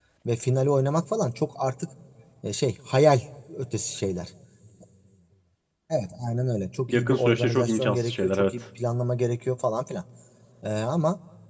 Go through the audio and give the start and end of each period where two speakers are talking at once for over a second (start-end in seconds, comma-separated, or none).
6.9-8.5